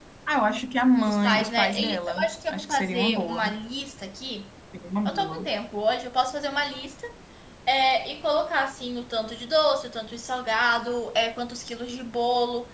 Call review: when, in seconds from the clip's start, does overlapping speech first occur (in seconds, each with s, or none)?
1.1 s